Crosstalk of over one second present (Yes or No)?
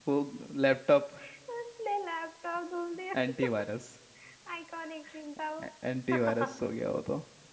No